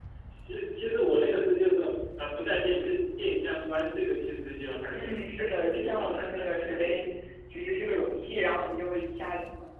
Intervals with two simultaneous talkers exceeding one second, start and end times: 4.9-7.0

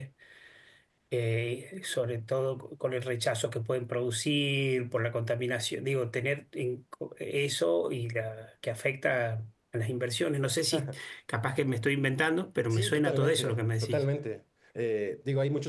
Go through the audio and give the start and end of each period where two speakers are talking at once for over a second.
12.7-14.0

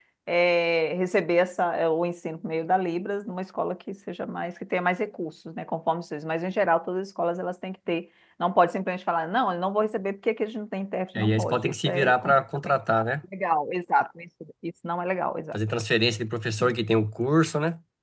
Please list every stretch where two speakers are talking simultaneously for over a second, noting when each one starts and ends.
11.2-12.8

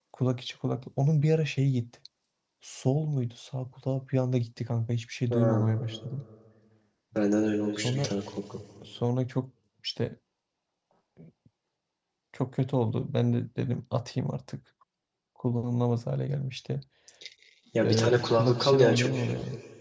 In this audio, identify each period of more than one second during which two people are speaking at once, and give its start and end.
17.8-19.1

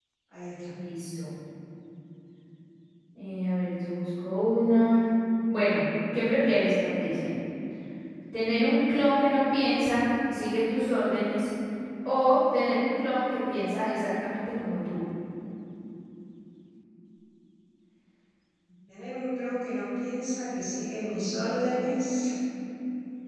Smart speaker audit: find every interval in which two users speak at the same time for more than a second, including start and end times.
none

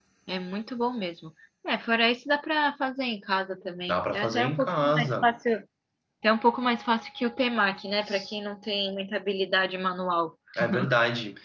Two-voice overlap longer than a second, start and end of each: 3.9-5.3

